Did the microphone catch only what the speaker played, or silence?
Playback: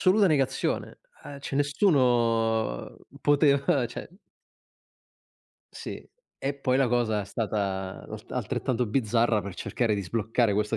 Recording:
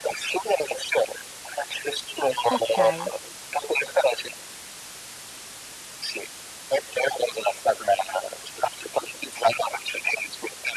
No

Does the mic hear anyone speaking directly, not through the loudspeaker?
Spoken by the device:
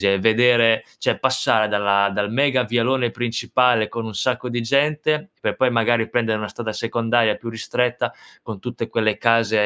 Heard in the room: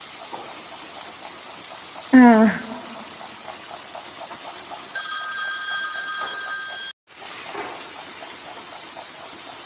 Yes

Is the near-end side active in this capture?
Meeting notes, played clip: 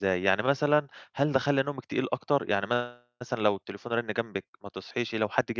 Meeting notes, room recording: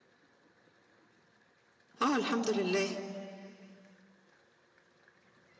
Yes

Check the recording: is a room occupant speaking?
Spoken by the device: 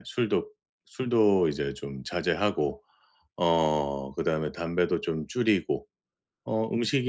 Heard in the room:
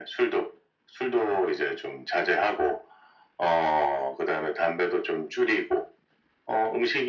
No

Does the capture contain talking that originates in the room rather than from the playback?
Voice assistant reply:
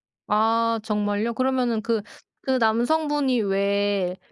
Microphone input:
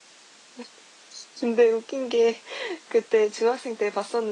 Yes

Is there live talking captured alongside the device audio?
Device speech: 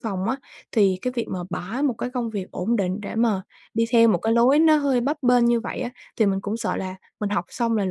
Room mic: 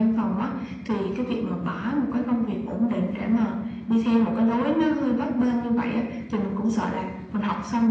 No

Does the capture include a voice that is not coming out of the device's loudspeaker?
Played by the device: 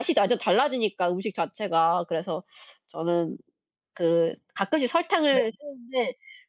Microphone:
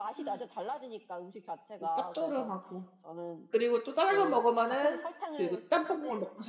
Yes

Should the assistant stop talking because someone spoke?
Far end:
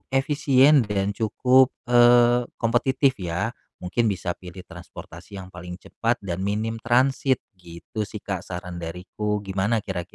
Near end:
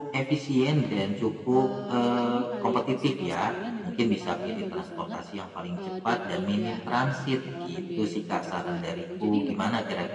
Yes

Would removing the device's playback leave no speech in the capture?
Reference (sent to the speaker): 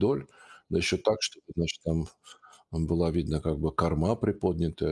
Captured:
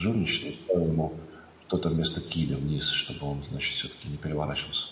No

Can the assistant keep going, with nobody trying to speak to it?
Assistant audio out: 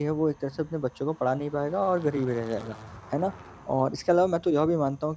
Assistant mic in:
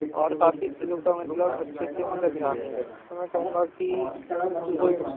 No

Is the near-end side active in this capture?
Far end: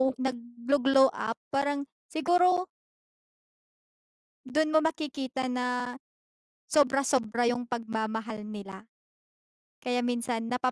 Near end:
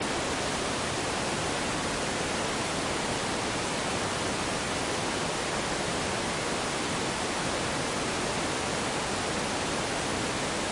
No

